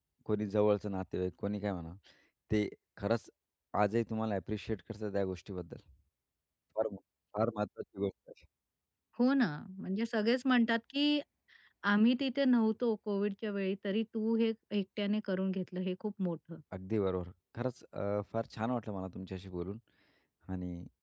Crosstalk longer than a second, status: none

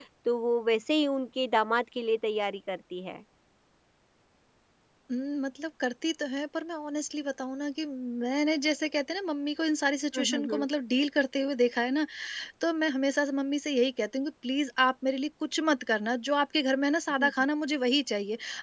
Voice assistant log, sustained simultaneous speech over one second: none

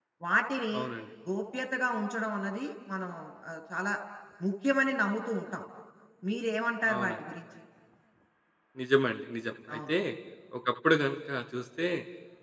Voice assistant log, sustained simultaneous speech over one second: none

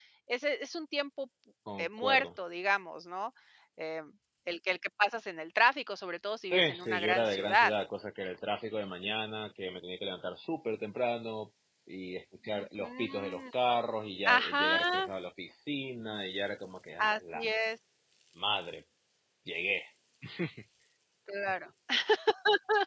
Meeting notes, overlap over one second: present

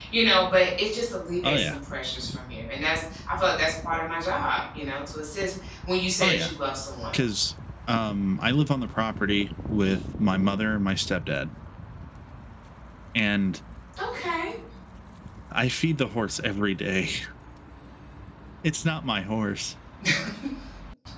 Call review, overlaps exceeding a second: none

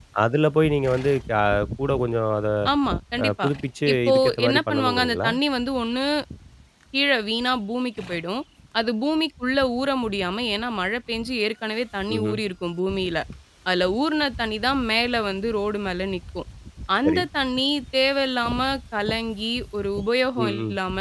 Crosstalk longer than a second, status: present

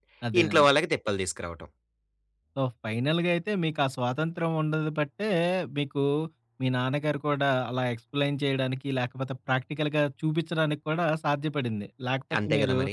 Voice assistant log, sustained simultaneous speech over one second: none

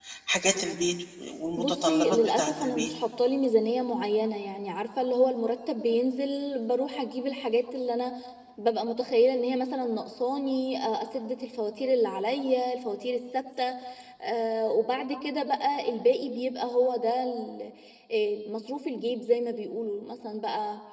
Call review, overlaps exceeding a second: present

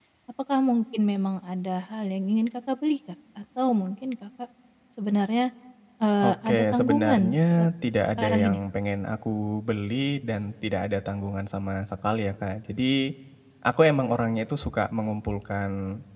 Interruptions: present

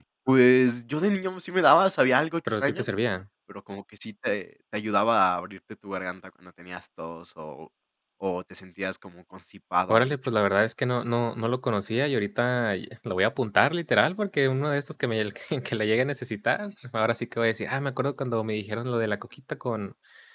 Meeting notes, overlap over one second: none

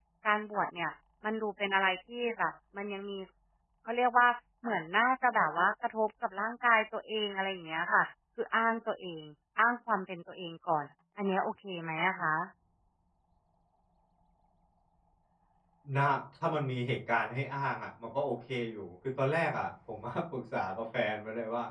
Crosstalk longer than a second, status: none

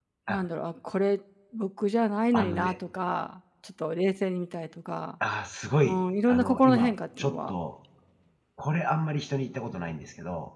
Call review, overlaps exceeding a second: present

